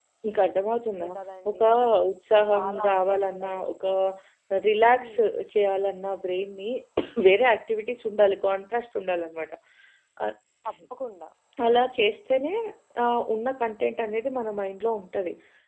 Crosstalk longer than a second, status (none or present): present